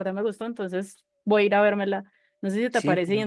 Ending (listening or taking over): listening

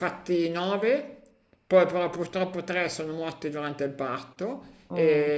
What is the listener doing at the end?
listening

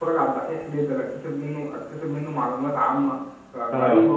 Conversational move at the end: listening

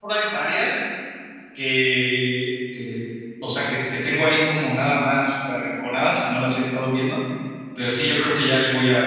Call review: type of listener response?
listening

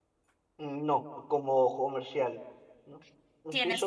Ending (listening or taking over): taking over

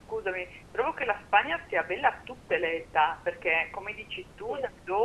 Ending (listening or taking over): listening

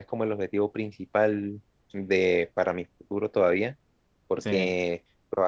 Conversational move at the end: listening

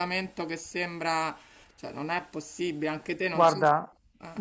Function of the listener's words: taking over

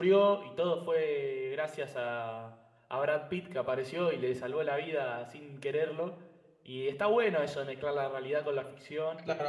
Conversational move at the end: taking over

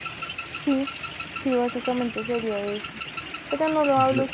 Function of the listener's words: listening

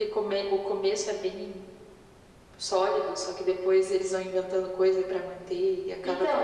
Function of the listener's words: taking over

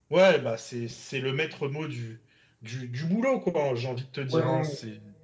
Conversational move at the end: taking over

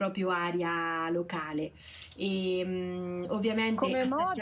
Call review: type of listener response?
taking over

